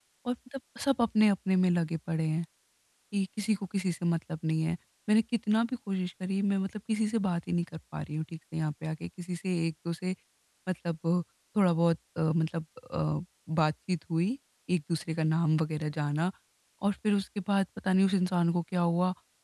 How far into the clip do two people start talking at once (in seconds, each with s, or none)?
none